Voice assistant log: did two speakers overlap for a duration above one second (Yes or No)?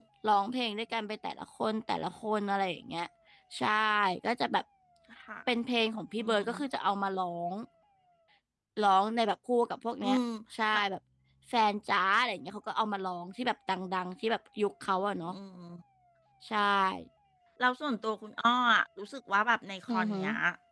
No